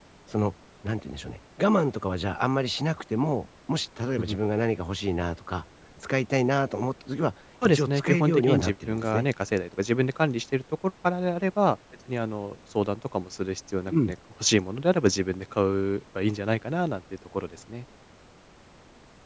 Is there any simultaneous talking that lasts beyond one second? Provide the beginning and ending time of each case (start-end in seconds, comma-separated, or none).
7.6-9.3